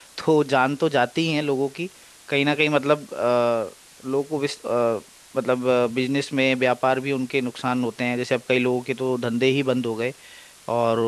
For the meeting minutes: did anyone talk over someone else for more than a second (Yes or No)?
No